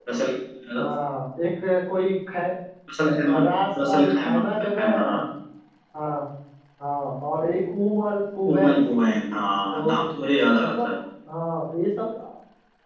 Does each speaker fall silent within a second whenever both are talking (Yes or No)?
No